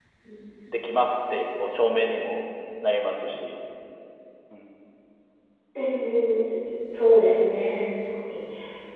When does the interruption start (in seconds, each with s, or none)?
none